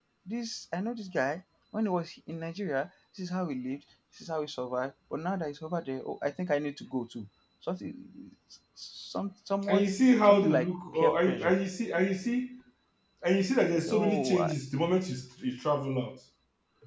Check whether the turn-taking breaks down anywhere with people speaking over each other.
Yes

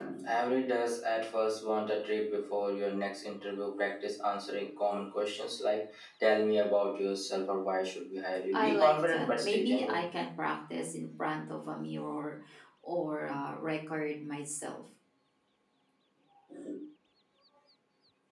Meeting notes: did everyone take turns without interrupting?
No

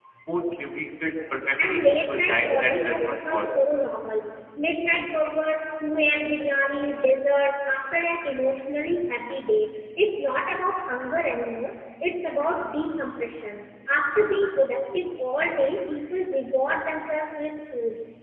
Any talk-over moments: Yes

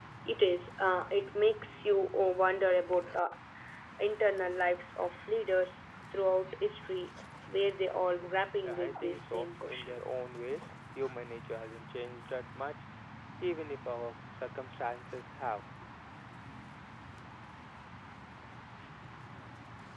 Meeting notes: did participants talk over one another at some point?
Yes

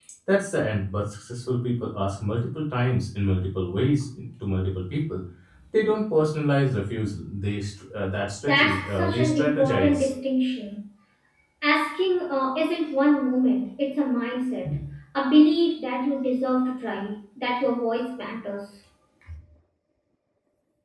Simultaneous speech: Yes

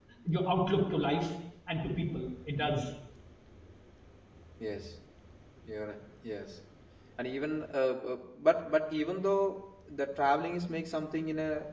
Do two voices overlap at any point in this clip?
No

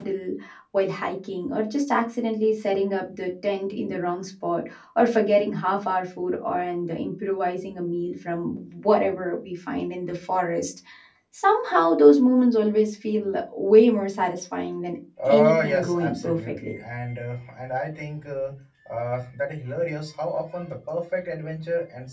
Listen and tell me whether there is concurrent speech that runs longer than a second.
Yes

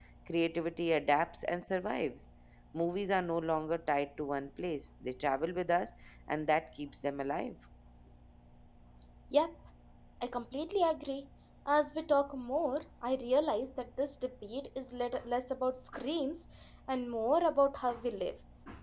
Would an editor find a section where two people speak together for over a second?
No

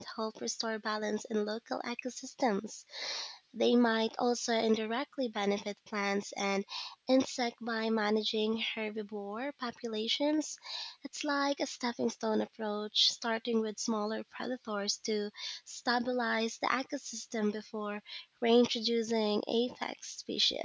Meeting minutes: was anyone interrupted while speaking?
No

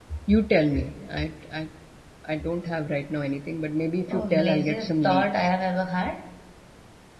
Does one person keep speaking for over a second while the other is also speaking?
Yes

